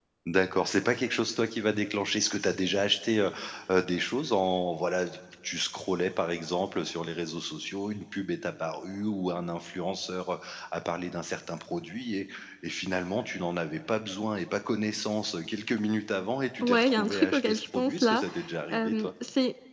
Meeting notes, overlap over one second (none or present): present